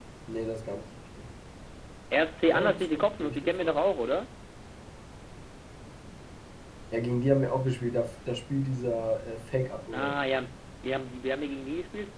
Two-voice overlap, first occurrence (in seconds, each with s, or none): 2.5 s